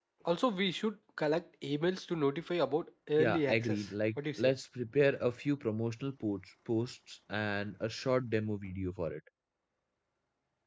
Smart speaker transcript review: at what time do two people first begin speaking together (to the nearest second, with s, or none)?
3 s